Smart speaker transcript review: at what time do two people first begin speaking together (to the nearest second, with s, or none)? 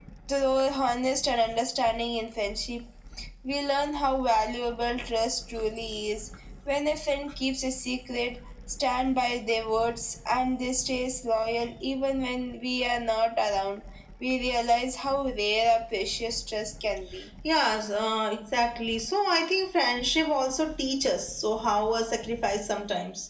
none